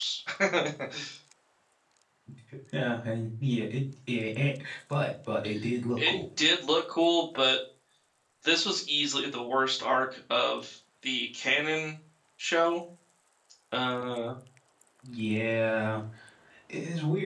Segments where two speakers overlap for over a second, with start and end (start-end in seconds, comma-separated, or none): none